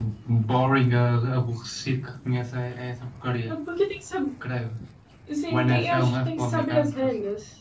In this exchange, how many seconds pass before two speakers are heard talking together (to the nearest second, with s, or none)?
5 s